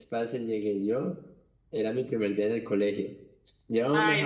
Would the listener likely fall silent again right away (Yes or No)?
Yes